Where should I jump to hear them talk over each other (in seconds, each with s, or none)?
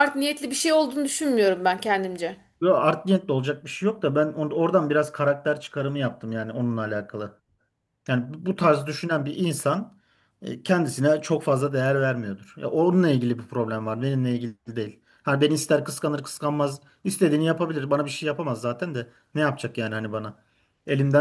none